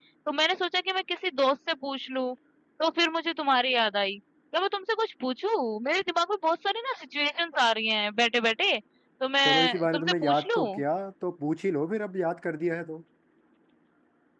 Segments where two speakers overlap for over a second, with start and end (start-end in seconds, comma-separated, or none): 9.4-10.8